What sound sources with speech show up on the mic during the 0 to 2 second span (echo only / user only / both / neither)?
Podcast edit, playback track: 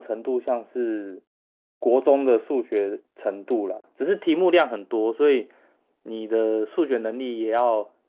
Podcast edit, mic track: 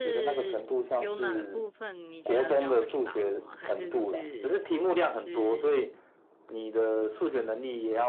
both